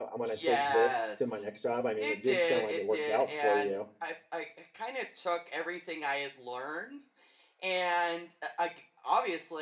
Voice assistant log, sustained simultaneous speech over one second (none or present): present